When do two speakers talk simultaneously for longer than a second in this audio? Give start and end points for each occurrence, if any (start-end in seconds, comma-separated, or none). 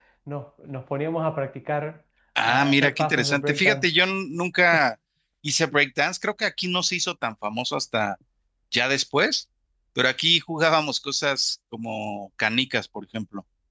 2.4-3.8